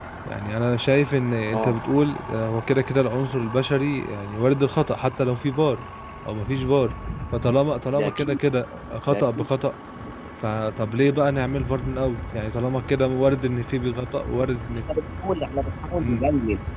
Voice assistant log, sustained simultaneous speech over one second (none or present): none